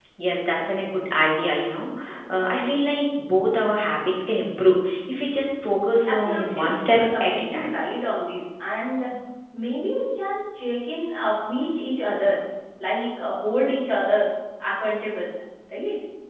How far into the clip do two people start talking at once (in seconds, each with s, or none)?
6.1 s